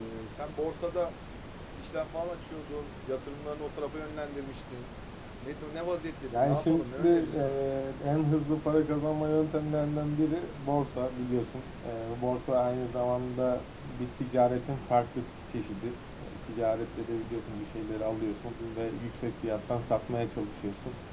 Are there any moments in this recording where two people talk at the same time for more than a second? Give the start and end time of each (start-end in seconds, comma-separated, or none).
6.3-7.6